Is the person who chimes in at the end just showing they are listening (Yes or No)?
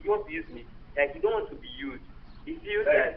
No